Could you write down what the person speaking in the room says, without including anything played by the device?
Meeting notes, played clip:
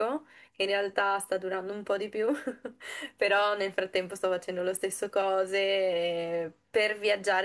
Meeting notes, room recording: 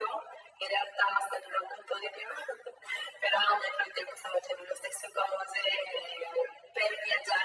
none

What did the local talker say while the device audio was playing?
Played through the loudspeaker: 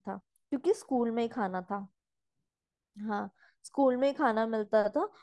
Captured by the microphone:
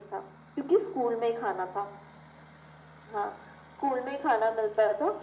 none

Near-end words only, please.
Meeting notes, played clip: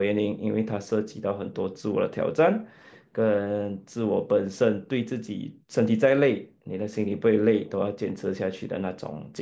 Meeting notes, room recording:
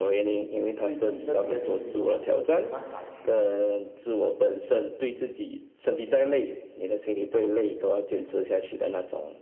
最近这几个星期都没有办法去，

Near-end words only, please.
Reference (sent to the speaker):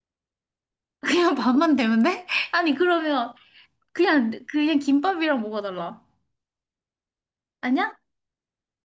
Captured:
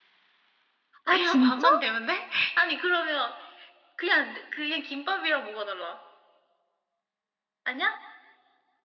아, 진짜?

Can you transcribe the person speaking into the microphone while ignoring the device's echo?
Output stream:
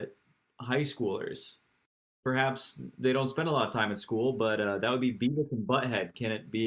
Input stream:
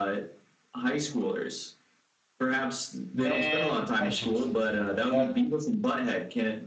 Man, I should have said zero. That.

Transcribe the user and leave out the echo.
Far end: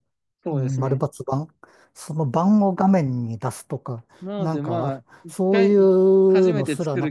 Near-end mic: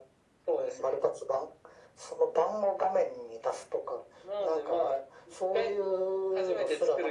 none

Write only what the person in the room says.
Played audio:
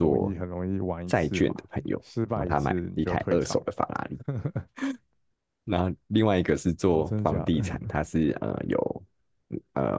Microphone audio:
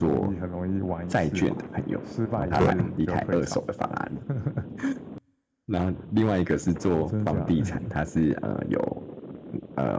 对啊，

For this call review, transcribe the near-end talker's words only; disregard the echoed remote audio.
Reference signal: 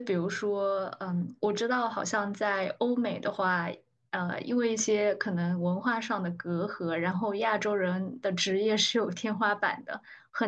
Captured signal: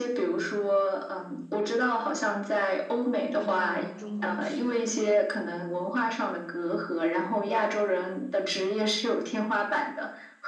回到中国去。

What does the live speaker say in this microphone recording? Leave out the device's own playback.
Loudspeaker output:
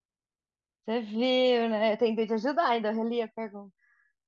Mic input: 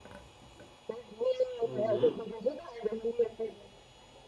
uhum.

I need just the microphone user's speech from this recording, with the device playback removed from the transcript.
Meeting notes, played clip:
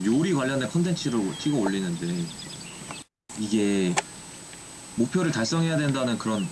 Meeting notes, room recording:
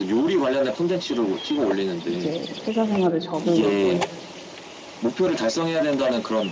이제 회사 생활을 접으려고 해.

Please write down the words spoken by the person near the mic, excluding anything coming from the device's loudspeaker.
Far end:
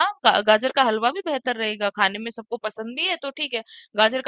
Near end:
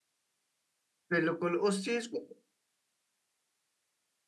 बिल्कुल उस चीज को

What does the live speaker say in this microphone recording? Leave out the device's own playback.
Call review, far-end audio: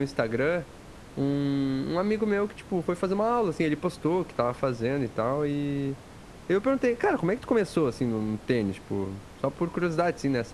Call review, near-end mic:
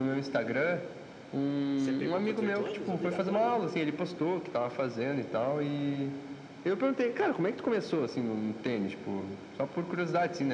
Você pegou com 18 anos, obrigatório?

